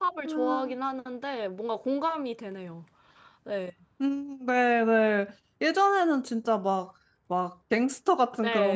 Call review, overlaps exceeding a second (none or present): none